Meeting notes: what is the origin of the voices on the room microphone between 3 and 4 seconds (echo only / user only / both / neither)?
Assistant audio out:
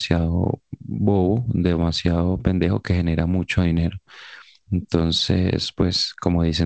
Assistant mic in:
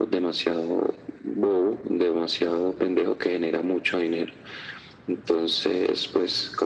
echo only